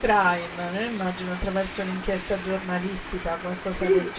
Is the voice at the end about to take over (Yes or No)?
Yes